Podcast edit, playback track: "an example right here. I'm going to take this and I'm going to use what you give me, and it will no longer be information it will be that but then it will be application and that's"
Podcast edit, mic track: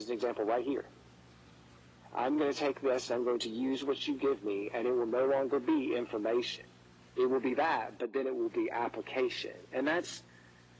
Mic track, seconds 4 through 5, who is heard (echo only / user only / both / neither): echo only